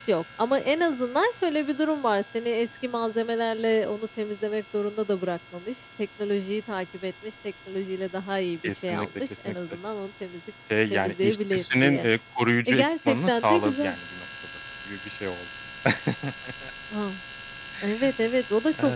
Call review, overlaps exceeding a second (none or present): present